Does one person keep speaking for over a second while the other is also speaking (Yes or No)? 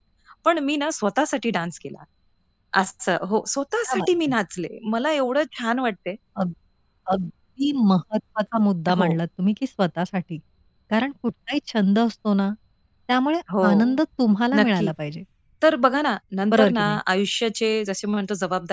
No